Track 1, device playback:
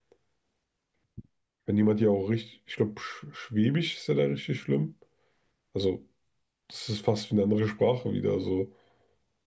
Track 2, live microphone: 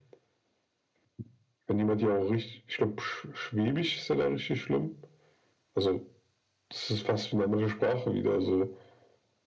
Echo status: present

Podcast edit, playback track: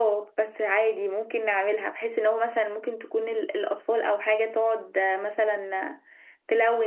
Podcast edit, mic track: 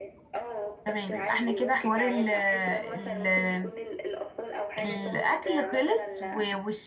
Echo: present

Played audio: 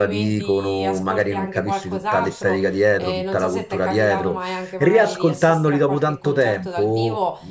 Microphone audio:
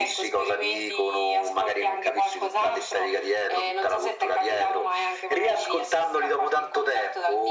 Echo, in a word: present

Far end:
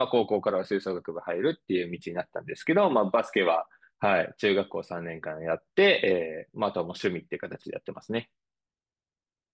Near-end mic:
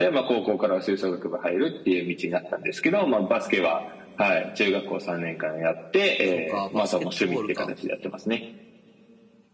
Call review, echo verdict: present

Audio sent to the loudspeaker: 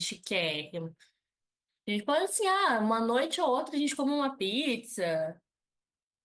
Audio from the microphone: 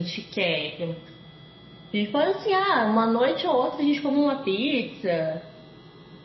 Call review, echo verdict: present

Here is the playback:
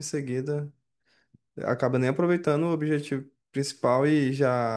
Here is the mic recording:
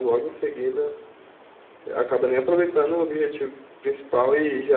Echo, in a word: present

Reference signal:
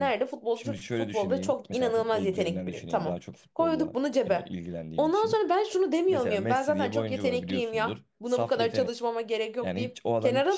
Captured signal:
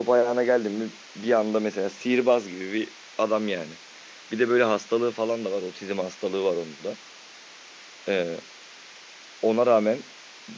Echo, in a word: none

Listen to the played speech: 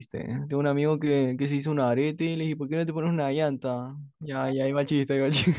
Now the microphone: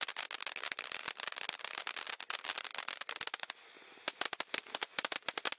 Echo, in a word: none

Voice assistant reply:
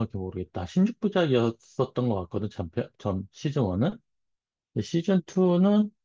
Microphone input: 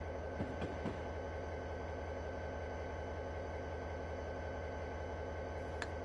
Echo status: none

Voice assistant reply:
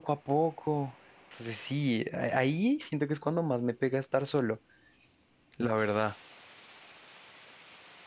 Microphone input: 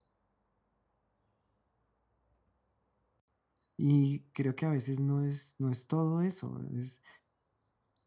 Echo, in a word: none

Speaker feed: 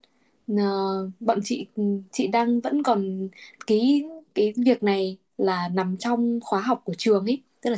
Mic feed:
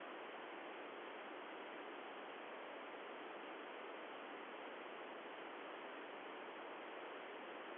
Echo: none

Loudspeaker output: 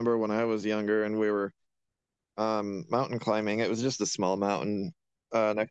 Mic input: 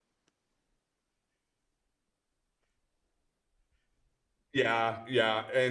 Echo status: none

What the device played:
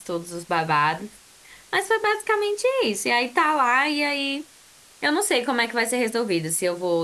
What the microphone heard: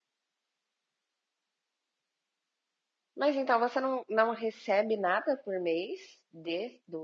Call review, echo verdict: none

